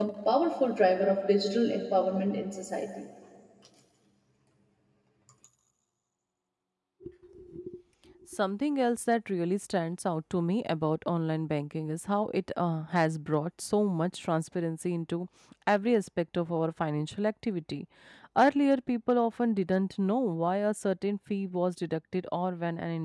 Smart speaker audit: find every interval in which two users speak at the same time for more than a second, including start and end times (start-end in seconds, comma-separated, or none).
none